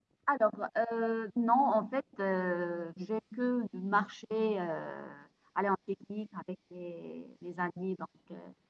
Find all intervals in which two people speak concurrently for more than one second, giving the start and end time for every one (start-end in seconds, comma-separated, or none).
none